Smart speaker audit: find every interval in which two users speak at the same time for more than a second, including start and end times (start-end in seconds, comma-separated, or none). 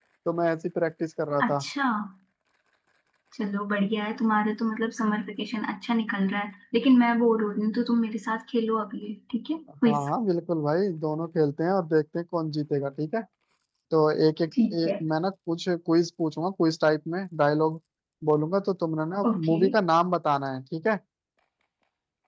none